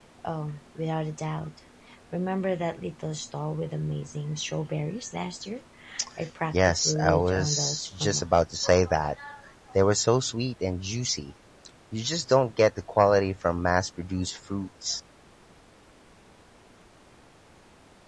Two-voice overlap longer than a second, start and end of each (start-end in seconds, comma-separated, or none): 6.5-8.3